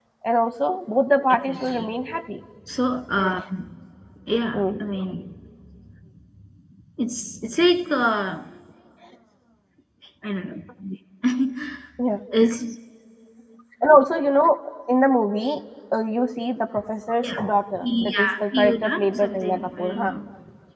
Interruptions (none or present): present